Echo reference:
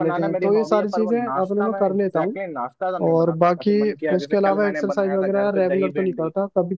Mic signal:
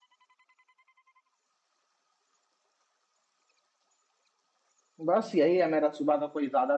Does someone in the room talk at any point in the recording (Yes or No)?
Yes